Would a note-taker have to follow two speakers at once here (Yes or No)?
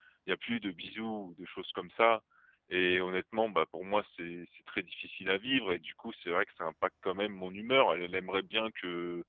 No